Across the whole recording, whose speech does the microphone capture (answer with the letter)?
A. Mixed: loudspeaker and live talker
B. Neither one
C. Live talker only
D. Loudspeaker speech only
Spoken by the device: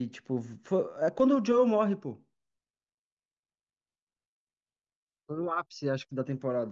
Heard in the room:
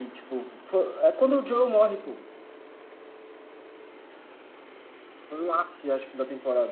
D